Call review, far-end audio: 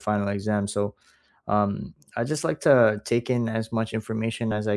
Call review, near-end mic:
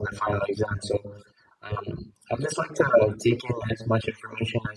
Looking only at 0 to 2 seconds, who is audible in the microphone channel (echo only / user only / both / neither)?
echo only